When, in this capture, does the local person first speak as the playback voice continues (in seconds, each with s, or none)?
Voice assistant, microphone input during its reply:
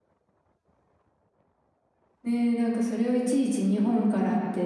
2.2 s